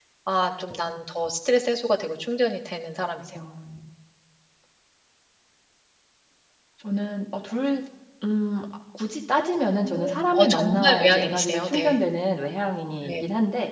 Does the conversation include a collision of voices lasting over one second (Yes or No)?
Yes